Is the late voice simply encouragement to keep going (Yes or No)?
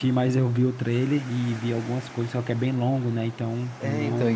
No